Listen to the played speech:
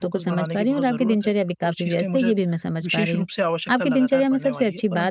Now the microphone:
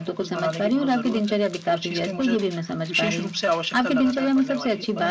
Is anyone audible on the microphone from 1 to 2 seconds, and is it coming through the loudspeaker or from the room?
echo only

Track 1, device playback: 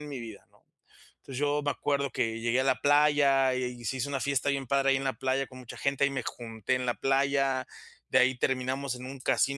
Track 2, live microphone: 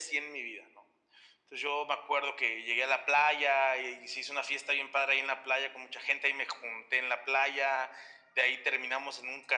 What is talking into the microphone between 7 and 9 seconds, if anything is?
echo only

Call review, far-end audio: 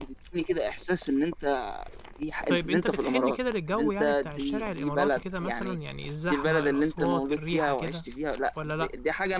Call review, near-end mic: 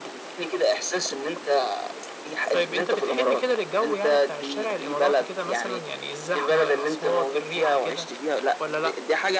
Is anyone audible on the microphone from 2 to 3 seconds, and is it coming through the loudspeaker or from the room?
echo only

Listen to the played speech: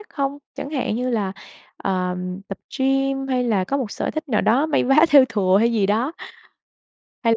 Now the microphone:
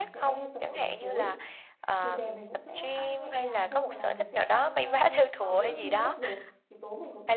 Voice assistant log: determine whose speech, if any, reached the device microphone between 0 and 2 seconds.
both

